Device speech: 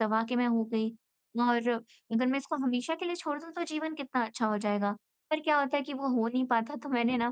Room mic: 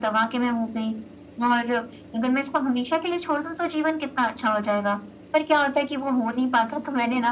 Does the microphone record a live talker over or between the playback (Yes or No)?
No